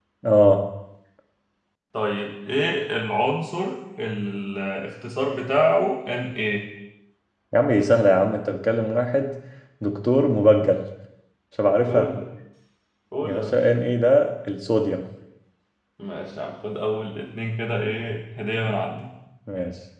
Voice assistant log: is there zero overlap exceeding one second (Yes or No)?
Yes